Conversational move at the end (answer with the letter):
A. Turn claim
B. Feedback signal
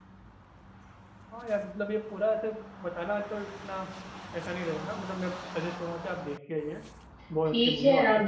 A